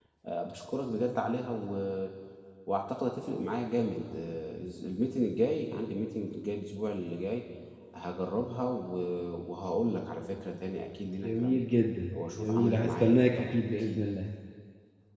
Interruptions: present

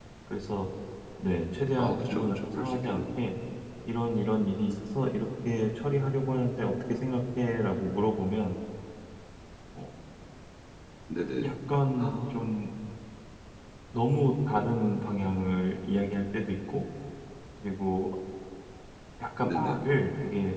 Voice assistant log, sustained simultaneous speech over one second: present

